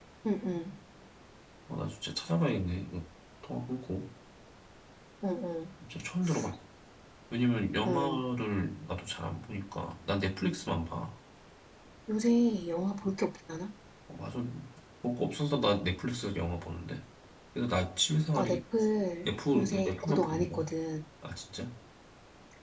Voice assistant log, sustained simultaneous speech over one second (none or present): present